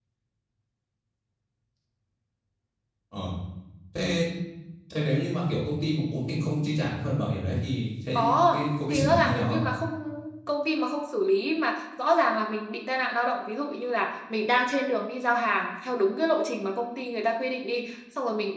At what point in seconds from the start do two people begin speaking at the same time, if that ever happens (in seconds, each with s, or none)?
8.2 s